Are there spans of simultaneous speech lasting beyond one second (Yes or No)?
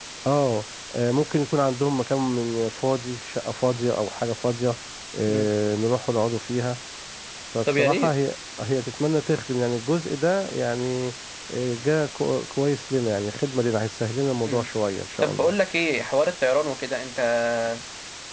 No